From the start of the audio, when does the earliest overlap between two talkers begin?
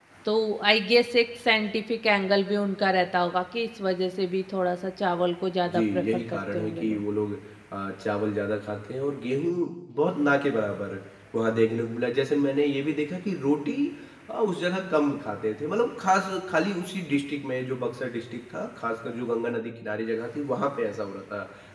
5.6 s

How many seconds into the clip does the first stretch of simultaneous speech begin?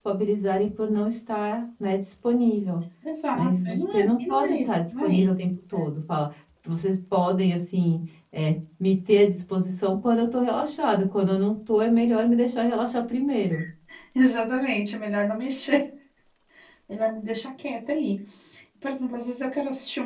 3.3 s

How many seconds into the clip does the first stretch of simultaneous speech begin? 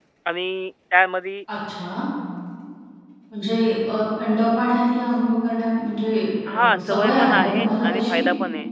6.5 s

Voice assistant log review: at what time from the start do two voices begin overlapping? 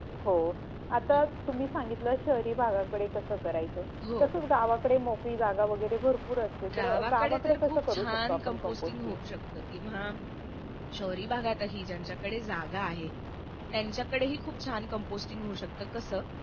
6.7 s

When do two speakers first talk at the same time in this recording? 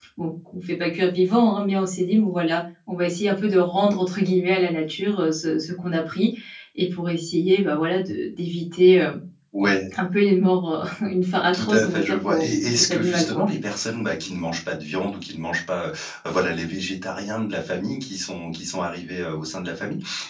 11.5 s

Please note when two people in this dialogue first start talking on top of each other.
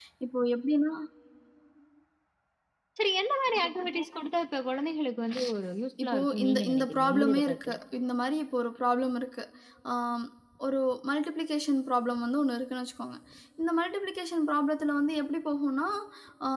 6.0 s

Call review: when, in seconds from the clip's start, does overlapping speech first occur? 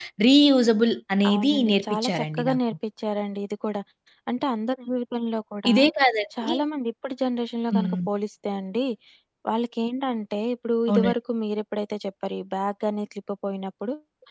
1.3 s

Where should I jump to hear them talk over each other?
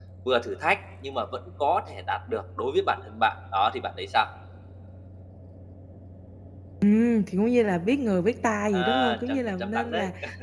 8.7 s

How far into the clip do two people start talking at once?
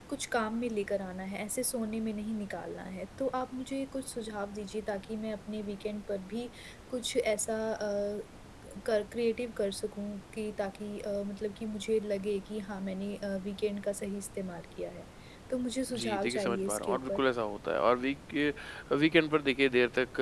16.0 s

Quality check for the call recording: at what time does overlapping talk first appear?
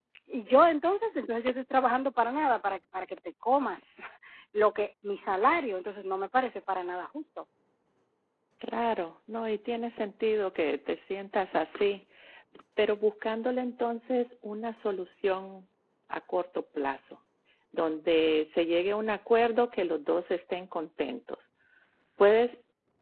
none

